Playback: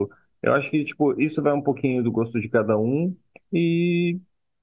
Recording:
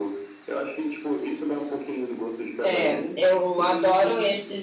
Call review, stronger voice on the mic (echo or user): user